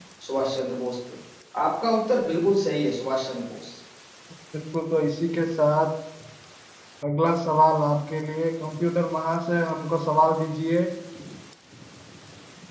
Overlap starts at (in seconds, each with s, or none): none